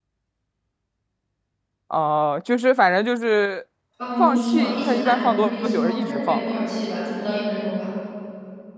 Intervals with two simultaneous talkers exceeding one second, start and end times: 4.2-6.6

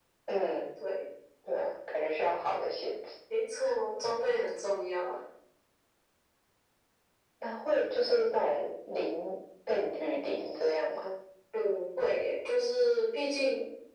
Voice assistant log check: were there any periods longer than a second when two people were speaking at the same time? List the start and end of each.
none

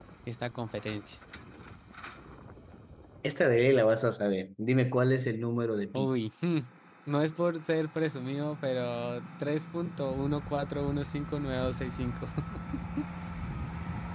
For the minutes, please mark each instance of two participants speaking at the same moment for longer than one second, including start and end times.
none

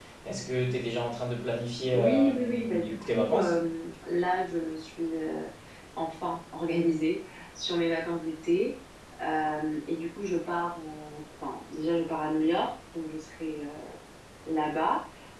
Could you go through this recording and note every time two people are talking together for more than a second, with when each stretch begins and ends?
1.9-3.6

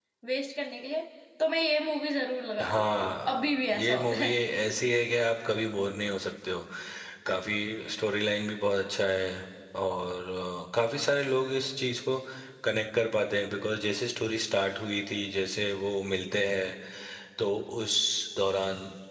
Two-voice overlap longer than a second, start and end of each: 2.6-4.3

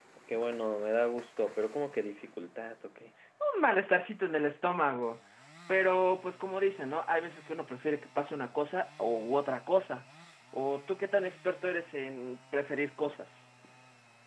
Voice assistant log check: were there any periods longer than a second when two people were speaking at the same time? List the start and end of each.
none

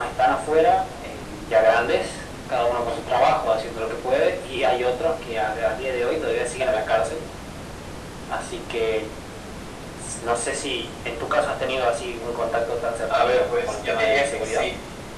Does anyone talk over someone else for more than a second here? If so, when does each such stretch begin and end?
13.1-14.7

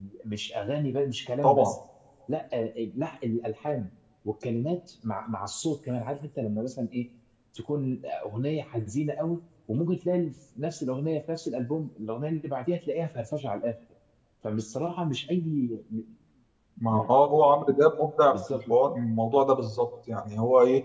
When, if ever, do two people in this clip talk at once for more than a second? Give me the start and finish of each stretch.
none

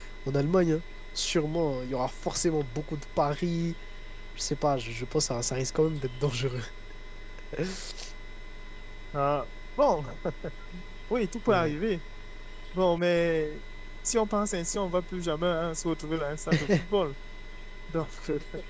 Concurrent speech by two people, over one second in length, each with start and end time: none

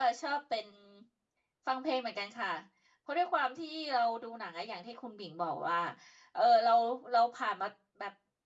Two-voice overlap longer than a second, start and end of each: none

